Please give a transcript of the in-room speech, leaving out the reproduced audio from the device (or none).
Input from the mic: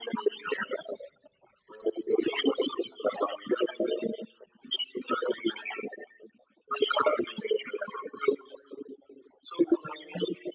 none